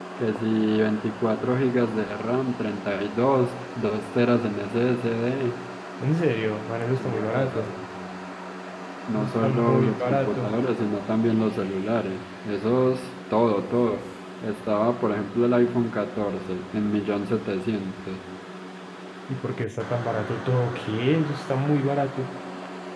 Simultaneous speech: Yes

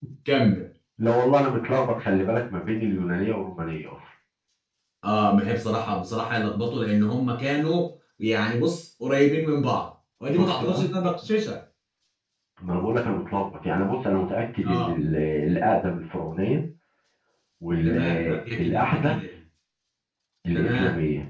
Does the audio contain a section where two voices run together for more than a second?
Yes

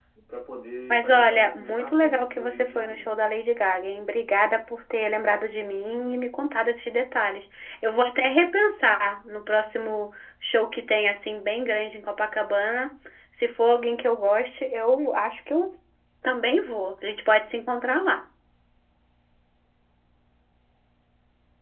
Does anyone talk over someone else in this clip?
Yes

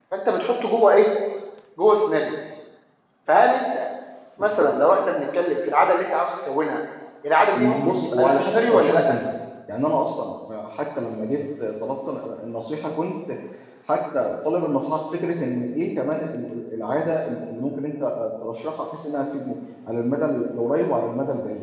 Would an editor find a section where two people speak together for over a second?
Yes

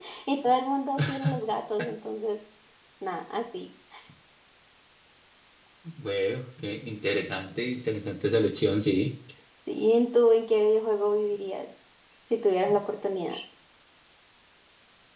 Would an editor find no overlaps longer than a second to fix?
Yes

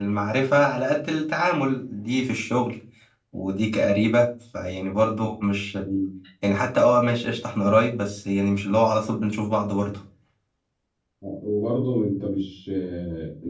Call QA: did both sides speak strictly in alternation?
Yes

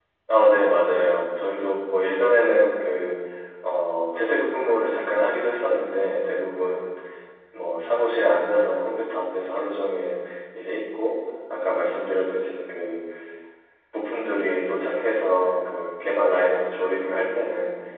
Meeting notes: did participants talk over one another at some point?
No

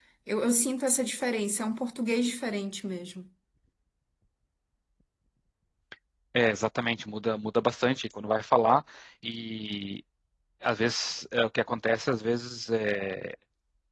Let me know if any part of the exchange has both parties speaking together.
No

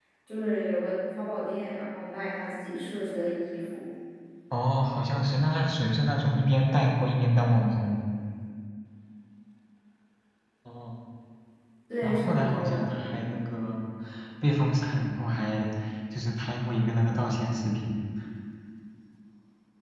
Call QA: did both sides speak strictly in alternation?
No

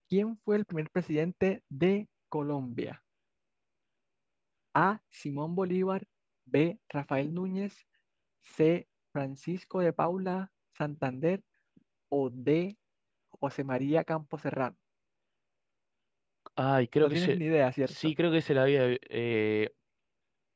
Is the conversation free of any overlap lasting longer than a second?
Yes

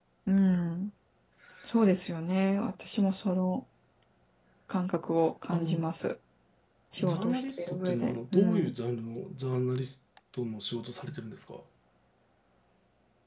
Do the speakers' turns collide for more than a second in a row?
Yes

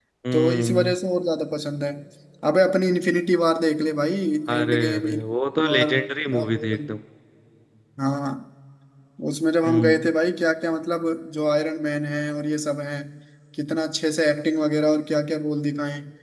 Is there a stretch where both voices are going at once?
Yes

